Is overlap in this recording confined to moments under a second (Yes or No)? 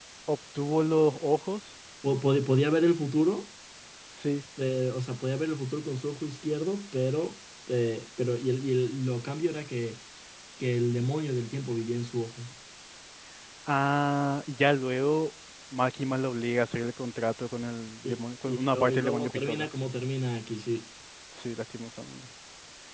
No